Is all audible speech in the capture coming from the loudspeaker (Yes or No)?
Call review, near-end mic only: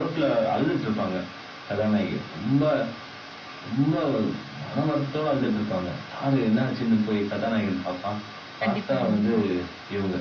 No